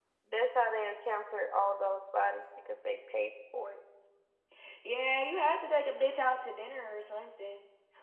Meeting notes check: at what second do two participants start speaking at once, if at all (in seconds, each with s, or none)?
none